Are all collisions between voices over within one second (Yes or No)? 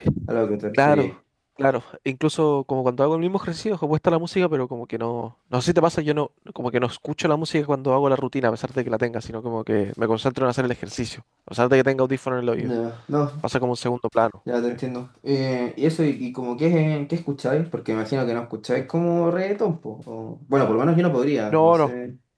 Yes